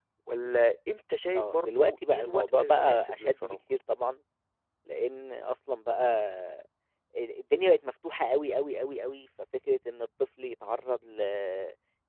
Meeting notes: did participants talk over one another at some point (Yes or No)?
Yes